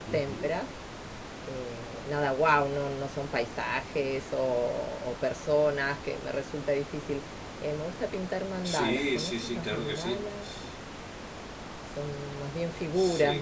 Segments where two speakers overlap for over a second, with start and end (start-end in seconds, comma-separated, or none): 8.6-10.2